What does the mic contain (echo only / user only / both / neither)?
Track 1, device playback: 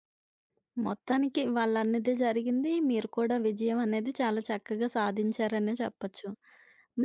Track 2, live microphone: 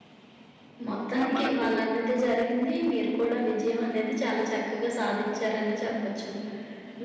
both